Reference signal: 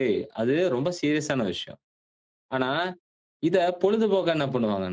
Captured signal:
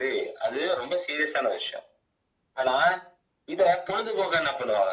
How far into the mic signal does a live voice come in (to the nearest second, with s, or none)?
none